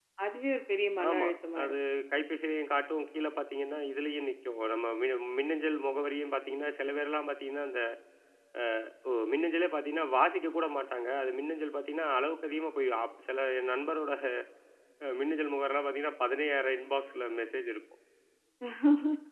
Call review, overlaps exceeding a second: none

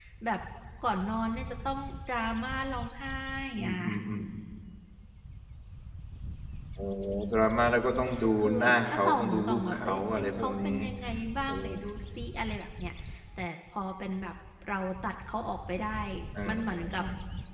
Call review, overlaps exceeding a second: present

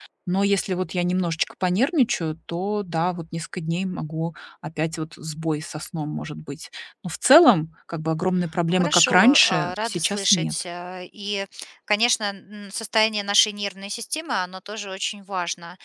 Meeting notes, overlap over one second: present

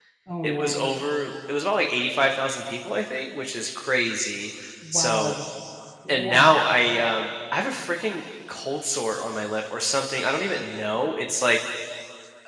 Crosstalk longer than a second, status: none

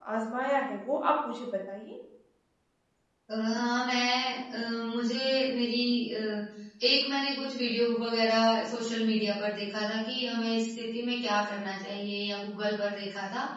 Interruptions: none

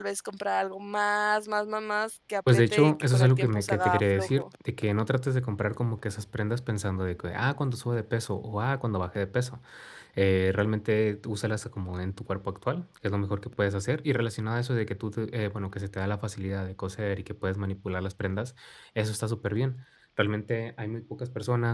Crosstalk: present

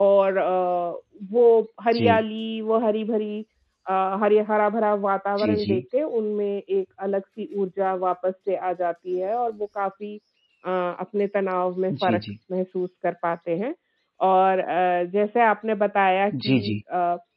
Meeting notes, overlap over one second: none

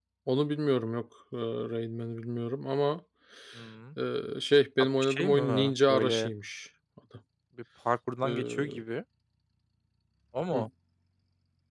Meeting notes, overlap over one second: present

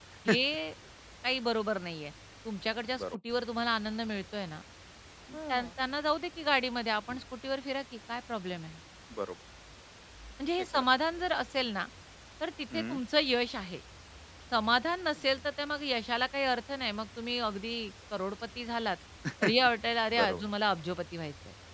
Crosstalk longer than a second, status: none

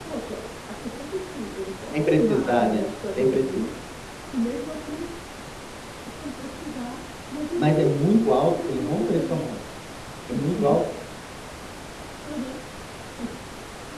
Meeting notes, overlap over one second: present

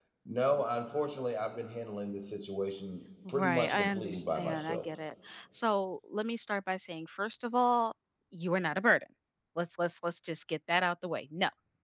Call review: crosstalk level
present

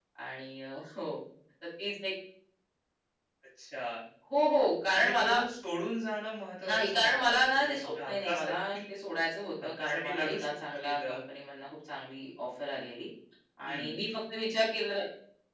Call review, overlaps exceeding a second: present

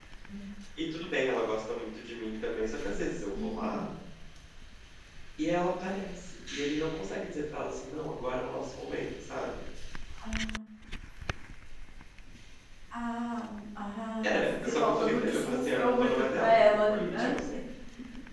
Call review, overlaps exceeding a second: present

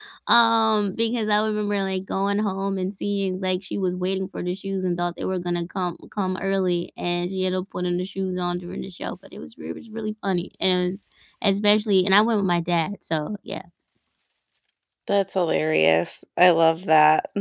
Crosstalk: none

